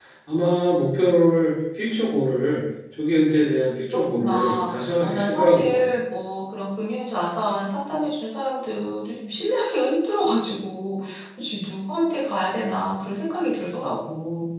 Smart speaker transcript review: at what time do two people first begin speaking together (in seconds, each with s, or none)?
4.2 s